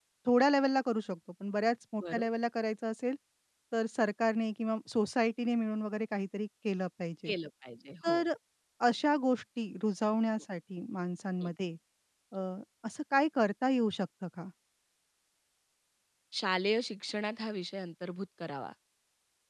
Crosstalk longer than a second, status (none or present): none